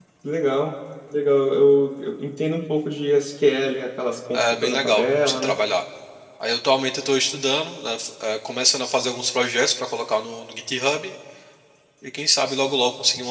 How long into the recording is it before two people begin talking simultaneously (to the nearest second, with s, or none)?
4 s